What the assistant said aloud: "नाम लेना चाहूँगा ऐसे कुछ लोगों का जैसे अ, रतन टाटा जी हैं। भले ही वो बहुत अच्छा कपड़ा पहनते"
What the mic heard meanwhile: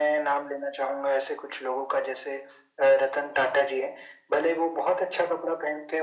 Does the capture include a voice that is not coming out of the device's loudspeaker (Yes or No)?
No